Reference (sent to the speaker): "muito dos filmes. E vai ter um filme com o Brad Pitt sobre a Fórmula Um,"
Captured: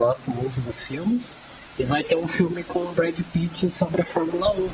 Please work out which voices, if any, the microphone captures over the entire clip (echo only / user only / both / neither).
echo only